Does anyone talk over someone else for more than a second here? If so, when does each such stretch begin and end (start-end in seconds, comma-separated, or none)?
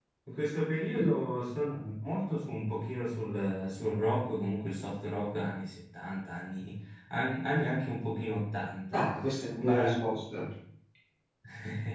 none